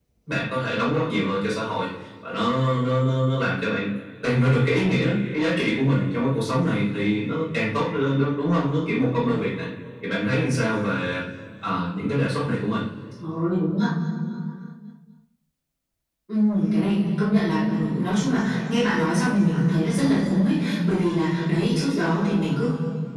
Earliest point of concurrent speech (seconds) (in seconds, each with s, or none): none